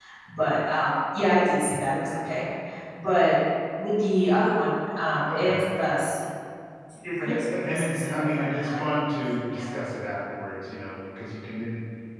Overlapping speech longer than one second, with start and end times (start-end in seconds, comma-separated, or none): 7.2-8.9